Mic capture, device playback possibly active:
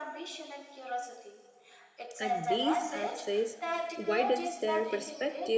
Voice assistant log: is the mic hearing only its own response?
No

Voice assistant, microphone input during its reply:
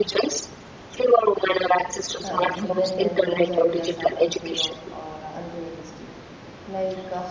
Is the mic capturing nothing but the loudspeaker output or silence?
No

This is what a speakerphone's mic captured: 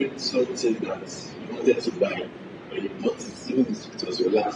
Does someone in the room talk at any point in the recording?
No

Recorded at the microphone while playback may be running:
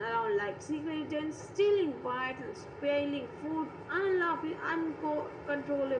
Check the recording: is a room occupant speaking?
No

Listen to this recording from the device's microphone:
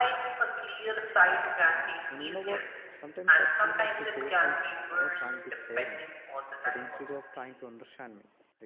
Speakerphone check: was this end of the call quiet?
No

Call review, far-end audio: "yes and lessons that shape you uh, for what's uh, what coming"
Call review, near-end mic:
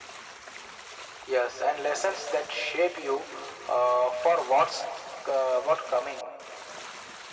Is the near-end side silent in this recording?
Yes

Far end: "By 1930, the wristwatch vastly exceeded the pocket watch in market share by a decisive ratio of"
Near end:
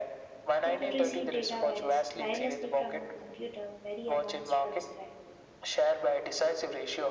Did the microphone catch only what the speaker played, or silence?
No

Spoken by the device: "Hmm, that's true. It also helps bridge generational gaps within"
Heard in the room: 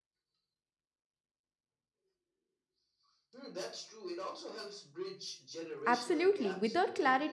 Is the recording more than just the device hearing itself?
Yes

